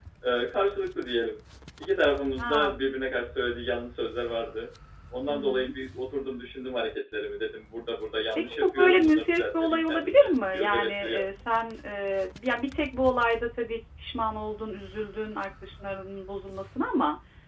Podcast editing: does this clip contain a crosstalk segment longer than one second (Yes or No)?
Yes